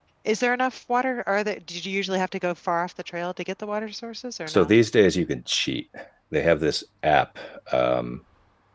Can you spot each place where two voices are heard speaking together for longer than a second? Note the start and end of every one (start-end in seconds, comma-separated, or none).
none